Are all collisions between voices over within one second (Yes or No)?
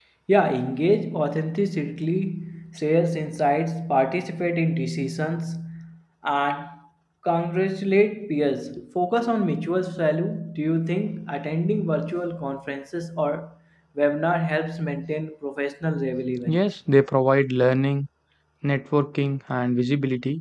Yes